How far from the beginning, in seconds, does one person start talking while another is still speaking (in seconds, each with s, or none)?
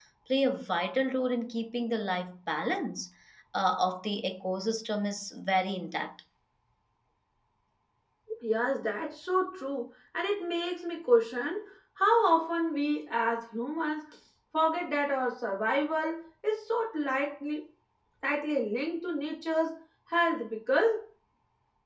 none